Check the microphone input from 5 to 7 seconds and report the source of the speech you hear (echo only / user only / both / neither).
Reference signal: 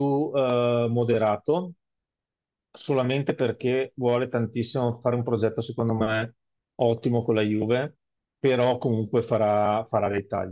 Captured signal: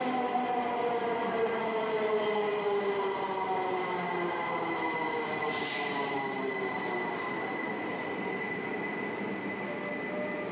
neither